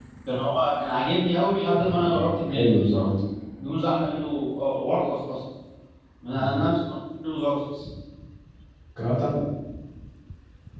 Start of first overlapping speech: 1.9 s

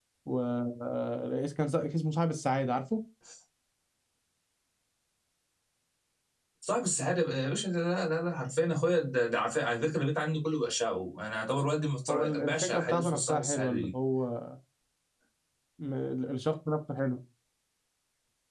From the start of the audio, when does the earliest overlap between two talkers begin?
12.1 s

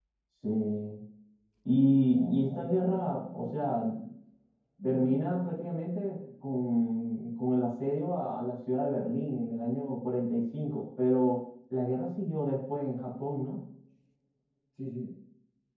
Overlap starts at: 2.1 s

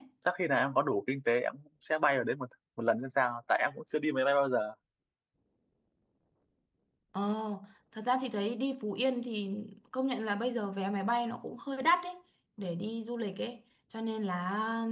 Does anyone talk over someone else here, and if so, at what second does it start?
none

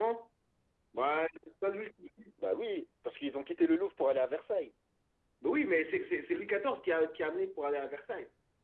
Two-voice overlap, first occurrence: none

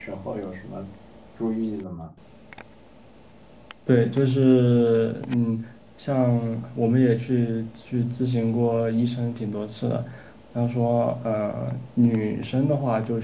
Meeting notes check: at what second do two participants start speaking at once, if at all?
none

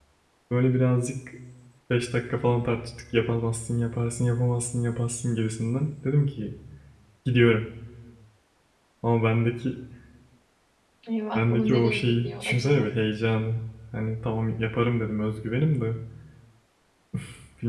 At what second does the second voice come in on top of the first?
11.3 s

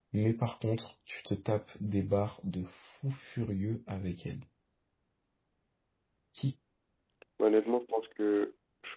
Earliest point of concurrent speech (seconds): none

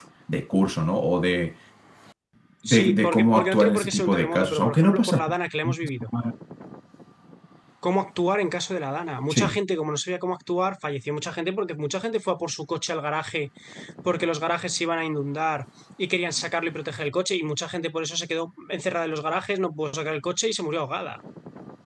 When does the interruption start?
2.7 s

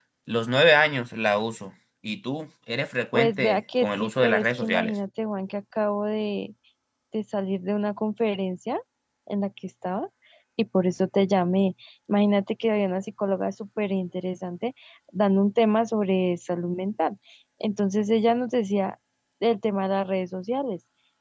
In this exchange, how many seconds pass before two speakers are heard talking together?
3.1 s

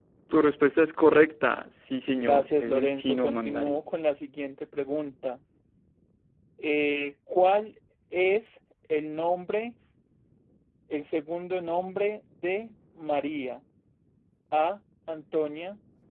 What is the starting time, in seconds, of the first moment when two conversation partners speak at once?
2.2 s

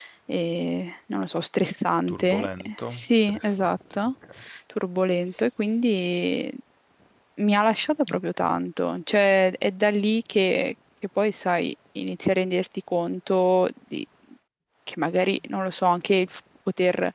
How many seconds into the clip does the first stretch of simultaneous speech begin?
2.1 s

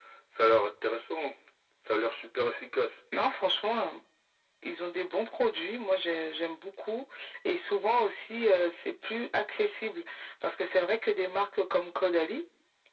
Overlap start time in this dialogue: none

